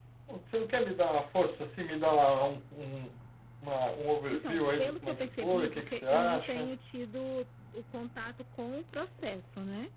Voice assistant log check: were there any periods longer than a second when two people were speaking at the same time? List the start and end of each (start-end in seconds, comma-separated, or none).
4.3-6.7